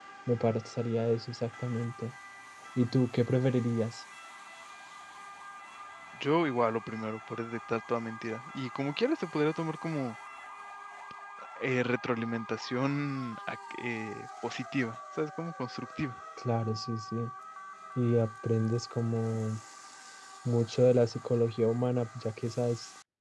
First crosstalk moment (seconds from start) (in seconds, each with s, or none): none